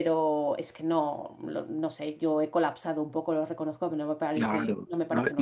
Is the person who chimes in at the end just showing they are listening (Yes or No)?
No